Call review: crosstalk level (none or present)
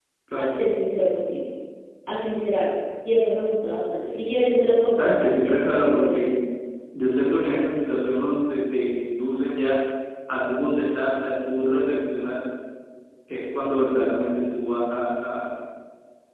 present